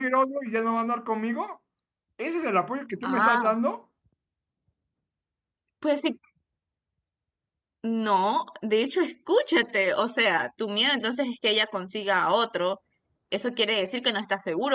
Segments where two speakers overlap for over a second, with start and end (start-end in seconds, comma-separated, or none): none